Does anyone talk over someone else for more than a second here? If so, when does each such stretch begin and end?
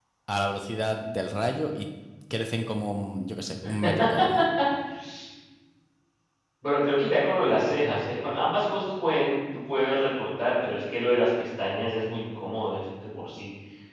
none

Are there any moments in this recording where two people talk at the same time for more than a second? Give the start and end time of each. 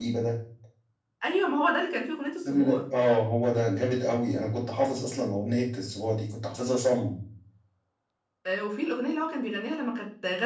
none

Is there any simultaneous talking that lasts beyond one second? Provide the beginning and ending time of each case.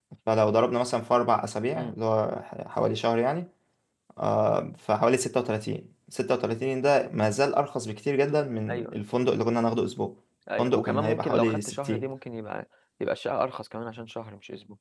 10.6-12.1

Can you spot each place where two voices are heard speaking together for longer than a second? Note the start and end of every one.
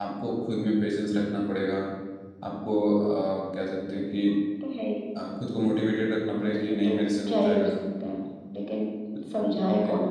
6.5-7.7

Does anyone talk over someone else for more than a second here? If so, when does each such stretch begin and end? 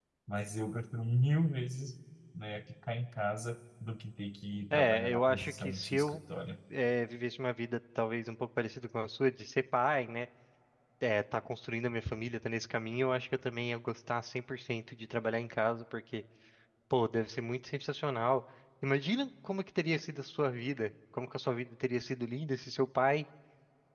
4.7-6.2

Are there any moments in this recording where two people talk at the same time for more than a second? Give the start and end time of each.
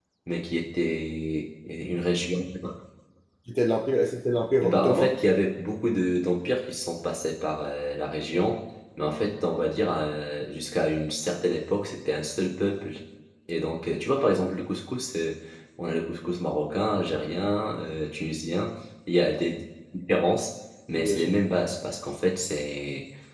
none

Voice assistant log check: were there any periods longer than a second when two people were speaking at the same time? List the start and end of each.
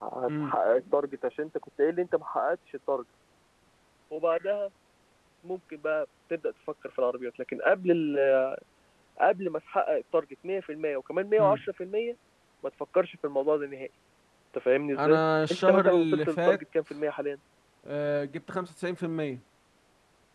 15.0-16.6

